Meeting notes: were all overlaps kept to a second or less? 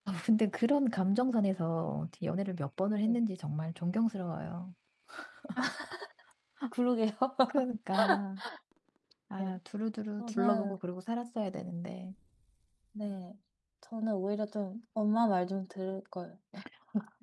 Yes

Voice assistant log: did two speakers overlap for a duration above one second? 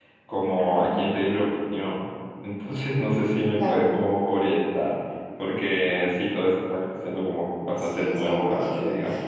Yes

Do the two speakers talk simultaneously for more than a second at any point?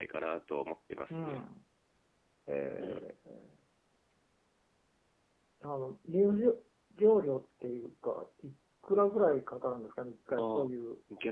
No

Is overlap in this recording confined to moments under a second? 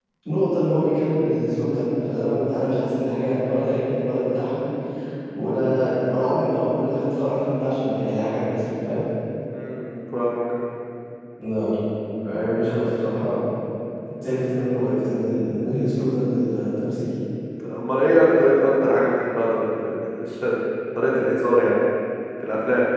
Yes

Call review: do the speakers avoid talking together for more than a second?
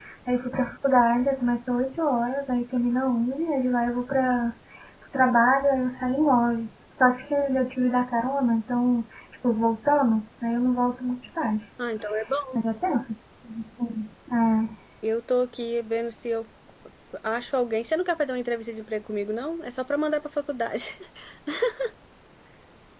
Yes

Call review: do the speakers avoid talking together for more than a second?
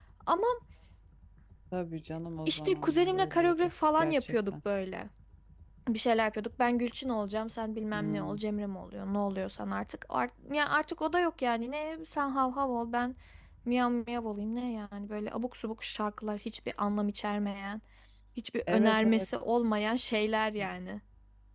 No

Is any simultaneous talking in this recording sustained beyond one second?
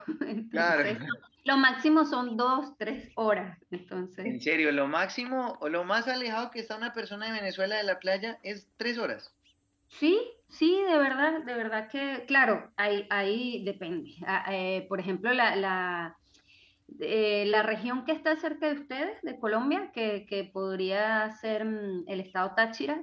No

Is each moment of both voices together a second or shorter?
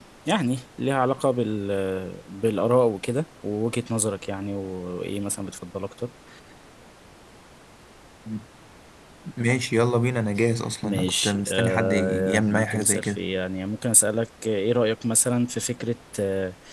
No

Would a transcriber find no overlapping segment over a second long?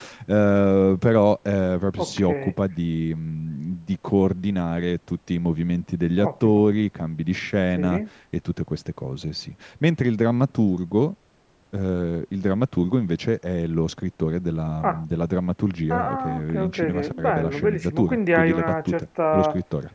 No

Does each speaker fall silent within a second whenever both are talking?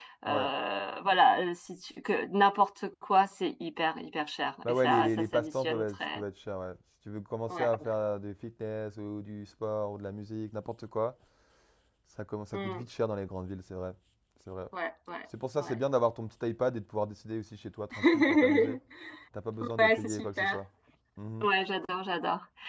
No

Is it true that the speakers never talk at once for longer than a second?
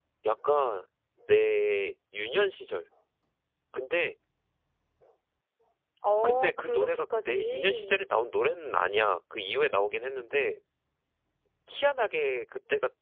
No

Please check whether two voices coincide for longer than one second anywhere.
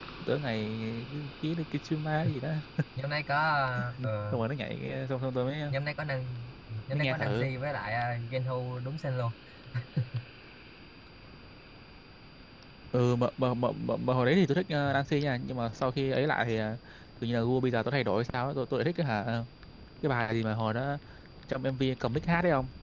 No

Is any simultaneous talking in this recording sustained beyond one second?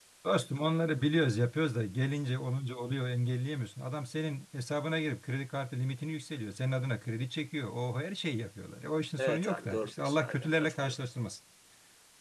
Yes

